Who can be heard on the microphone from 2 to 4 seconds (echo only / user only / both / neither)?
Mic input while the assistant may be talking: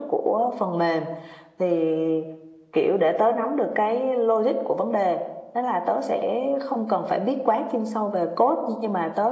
echo only